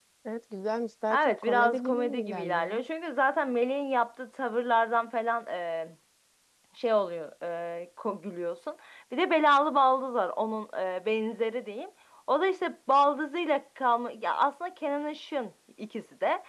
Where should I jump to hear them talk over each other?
1 s

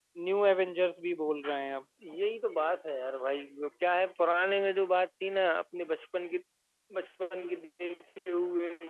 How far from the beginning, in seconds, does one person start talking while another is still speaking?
none

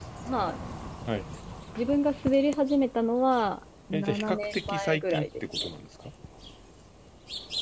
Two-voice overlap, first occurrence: 4 s

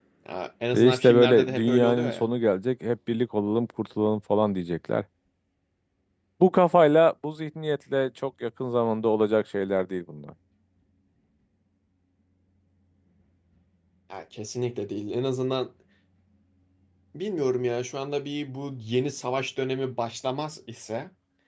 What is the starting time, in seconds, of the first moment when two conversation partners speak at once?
1 s

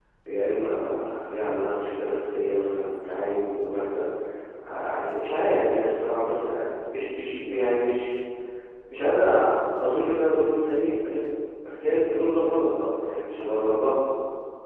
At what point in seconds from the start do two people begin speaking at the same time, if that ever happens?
none

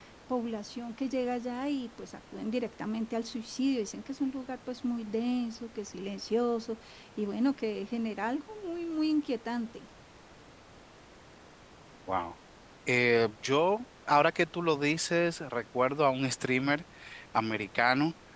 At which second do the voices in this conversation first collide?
none

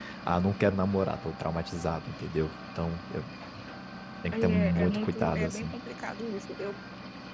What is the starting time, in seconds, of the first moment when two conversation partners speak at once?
4 s

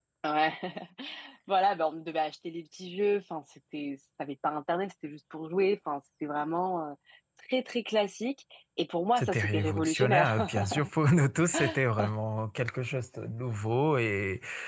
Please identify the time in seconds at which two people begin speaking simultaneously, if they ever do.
9 s

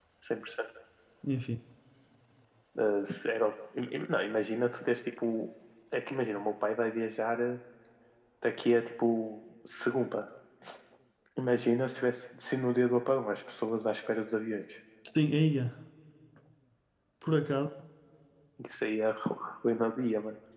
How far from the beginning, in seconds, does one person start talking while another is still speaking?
none

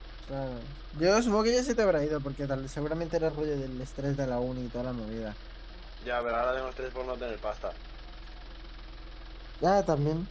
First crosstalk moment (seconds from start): none

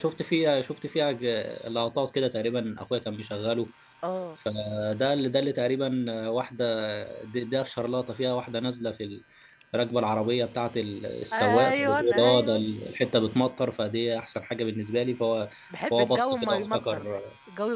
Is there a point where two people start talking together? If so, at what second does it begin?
11 s

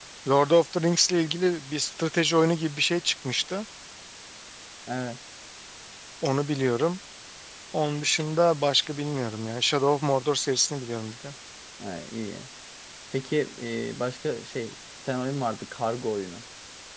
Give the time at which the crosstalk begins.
none

